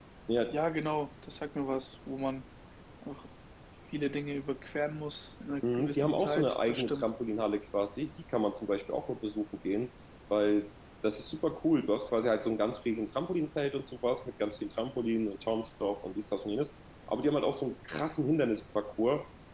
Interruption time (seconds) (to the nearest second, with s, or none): 6 s